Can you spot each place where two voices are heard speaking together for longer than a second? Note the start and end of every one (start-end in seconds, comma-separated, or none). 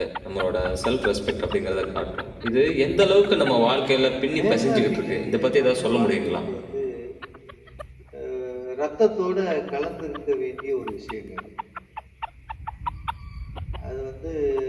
4.3-6.3